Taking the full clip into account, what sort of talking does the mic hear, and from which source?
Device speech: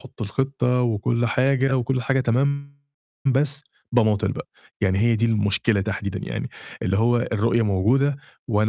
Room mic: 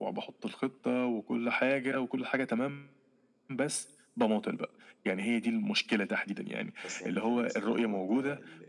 both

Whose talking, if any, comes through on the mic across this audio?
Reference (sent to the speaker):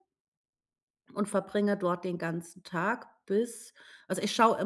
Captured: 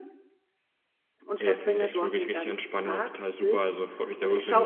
both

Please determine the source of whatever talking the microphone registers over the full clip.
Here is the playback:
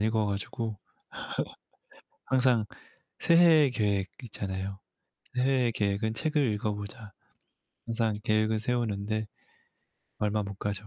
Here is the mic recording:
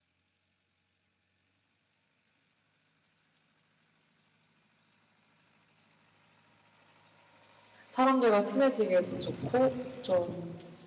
user only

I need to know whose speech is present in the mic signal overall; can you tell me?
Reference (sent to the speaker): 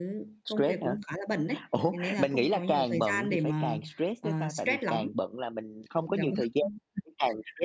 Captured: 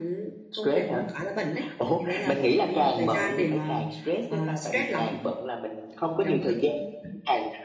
echo only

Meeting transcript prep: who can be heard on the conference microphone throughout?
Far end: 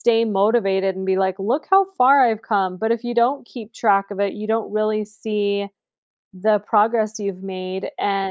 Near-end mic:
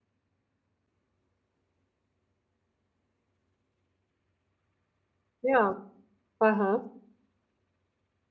user only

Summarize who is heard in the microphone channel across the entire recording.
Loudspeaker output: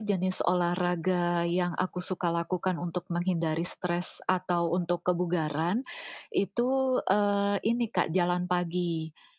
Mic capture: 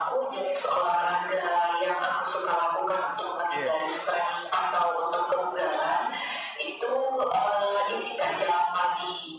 both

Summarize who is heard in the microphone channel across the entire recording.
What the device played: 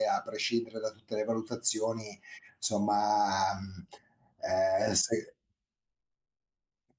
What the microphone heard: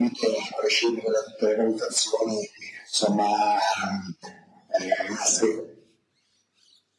echo only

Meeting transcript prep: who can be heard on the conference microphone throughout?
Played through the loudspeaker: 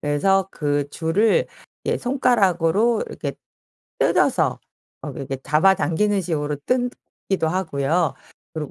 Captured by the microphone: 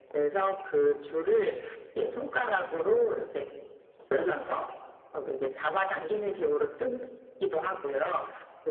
echo only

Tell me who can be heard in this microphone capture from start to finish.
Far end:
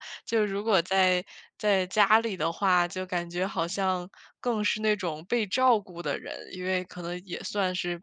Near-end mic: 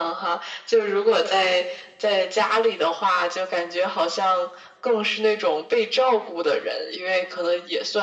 echo only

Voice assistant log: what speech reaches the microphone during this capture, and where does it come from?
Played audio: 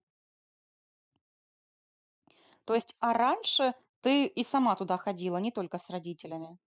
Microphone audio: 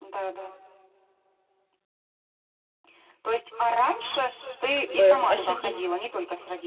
both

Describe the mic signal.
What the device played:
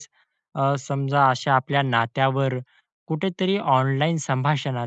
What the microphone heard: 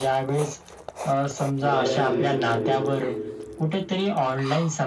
both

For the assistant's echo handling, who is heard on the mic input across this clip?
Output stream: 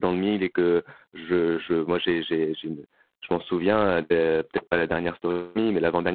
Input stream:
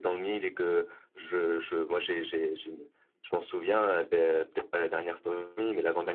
echo only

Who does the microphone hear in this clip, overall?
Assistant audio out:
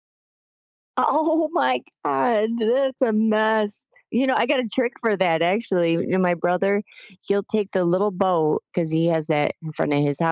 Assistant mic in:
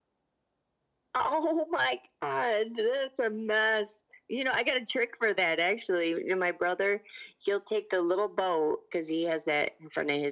echo only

